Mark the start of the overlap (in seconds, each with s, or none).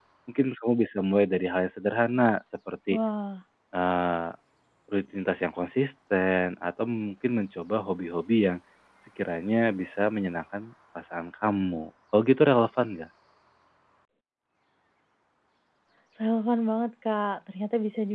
none